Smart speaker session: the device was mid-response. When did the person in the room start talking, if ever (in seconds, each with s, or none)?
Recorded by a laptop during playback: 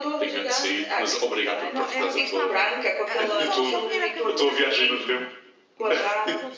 1.6 s